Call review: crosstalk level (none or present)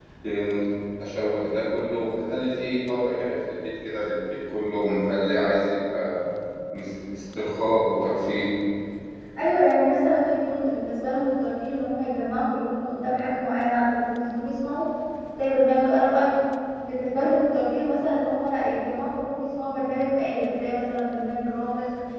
none